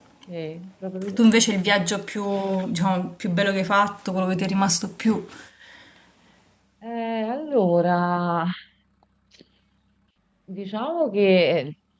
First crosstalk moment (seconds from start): none

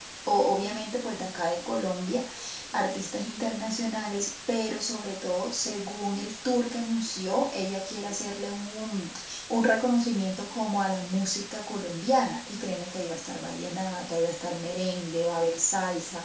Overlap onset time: none

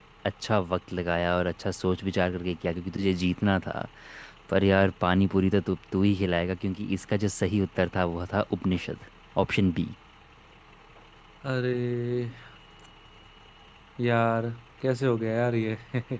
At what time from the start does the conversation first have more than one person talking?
none

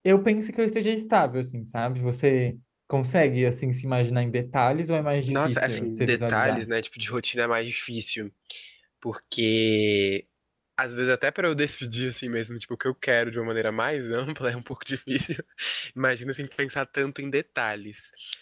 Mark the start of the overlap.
5.3 s

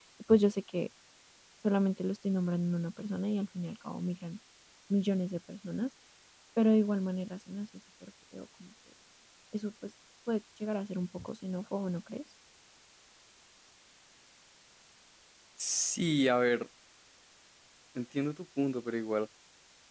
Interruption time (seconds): none

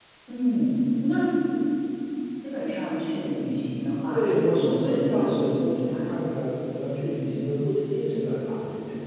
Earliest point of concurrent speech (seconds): 4.1 s

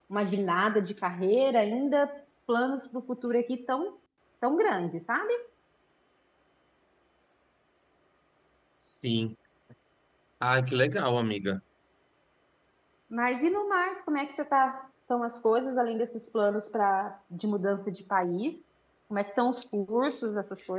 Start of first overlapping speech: none

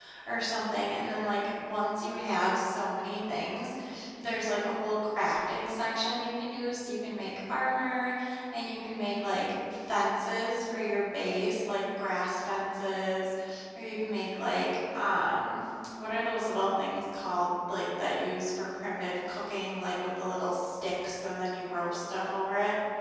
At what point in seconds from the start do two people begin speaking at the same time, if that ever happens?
none

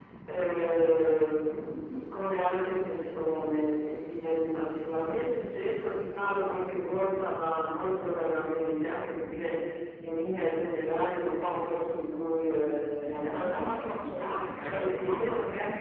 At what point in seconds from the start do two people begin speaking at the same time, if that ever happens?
13.0 s

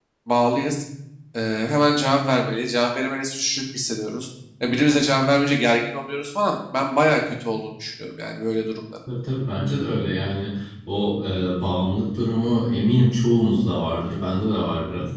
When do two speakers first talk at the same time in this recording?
none

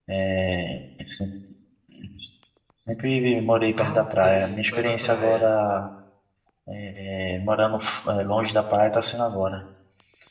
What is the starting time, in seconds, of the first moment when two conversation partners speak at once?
3.8 s

